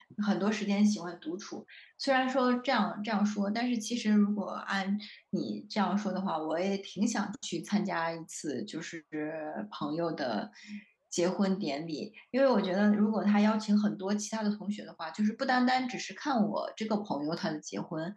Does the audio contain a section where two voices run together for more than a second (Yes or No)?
No